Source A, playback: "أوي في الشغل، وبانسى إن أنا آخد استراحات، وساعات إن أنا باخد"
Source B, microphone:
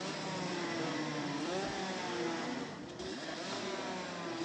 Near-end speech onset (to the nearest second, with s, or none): none